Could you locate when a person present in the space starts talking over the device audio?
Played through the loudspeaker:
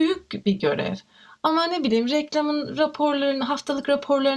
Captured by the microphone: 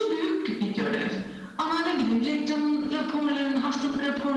none

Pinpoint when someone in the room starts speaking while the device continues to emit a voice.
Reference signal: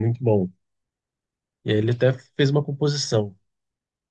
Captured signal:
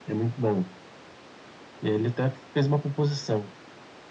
none

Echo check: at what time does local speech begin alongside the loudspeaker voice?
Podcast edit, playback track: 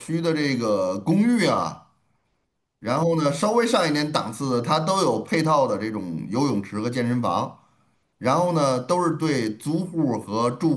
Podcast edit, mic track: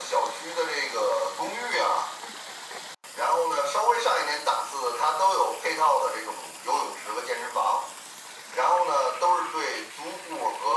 none

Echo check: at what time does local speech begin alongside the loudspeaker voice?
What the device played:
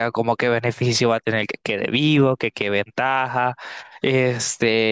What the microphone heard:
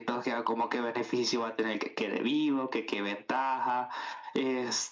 none

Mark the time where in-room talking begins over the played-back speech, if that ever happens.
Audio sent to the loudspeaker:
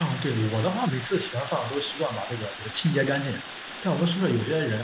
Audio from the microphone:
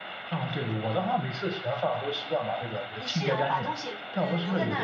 2.5 s

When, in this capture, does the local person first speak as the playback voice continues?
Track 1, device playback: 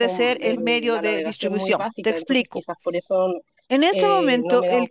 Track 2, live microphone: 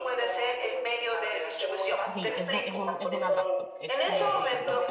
2.1 s

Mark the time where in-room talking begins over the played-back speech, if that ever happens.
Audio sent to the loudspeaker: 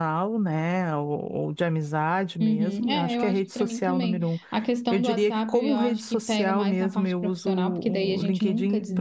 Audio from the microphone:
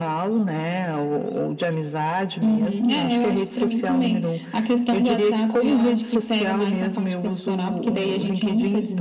none

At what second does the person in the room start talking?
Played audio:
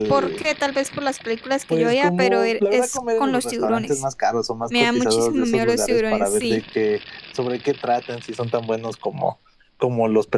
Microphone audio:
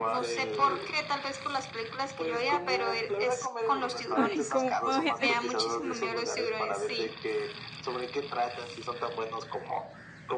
4.1 s

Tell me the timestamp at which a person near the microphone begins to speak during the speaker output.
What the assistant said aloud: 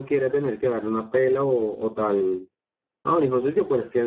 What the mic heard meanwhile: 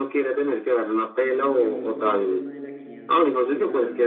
1.2 s

